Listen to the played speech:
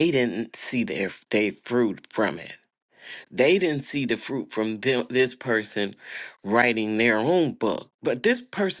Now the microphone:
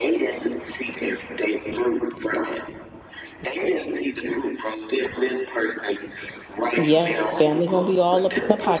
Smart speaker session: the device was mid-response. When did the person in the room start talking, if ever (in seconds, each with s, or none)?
6.8 s